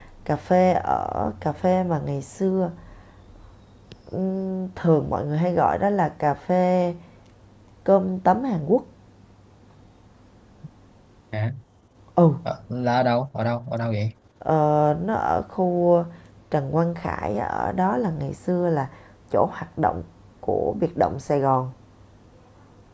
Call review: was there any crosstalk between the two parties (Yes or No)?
No